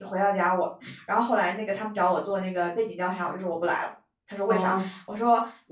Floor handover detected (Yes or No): No